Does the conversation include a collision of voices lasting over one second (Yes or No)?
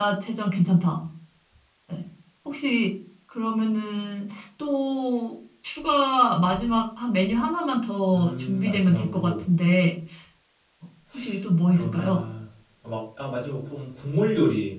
Yes